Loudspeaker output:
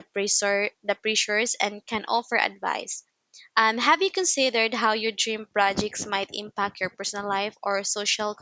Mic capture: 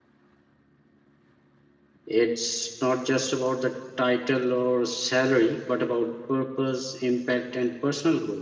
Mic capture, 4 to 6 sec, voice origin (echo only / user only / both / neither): user only